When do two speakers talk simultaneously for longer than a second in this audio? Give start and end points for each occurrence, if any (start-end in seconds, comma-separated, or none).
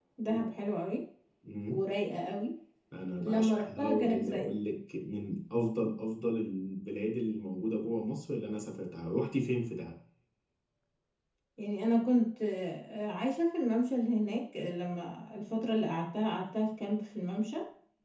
3.2-4.5